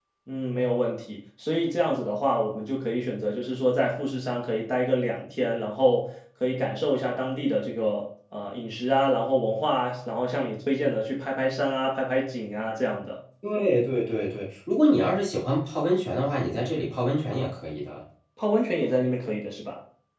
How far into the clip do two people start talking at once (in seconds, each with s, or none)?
none